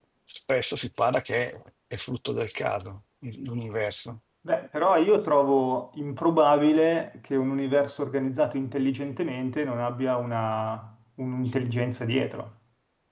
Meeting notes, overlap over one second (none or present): none